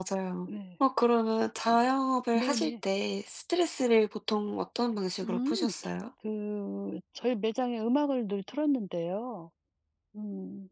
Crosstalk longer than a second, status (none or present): none